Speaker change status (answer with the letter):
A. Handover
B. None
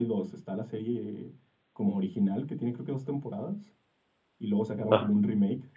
B